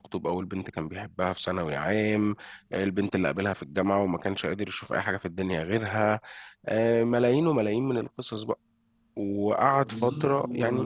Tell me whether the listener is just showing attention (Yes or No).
No